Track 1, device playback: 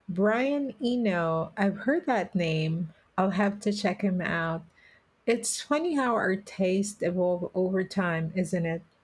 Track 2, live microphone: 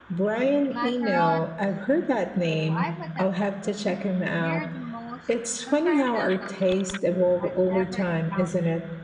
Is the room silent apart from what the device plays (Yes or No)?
No